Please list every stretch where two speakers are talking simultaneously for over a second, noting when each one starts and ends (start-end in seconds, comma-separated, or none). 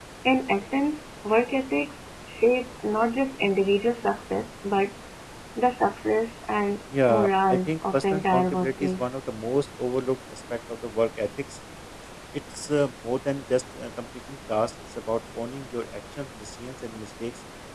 7.1-9.1